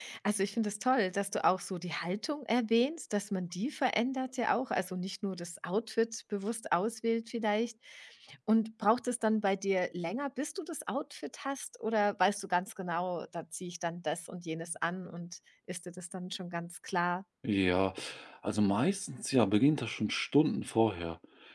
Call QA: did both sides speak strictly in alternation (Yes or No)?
Yes